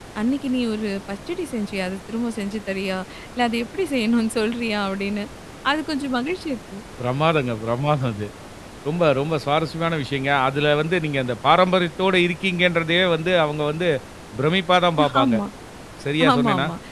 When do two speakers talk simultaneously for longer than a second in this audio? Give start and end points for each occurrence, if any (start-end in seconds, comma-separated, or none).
none